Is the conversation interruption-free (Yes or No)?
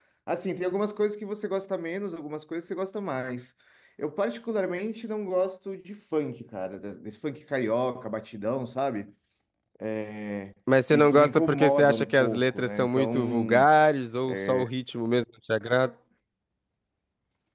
No